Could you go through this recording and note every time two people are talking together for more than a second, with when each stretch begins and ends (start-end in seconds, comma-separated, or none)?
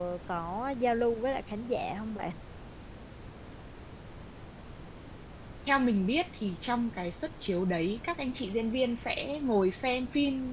none